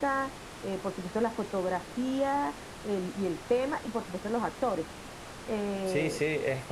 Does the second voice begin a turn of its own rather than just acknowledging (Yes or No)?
Yes